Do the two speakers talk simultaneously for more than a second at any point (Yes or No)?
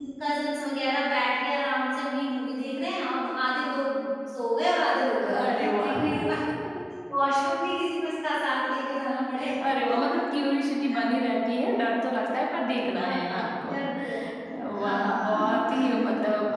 Yes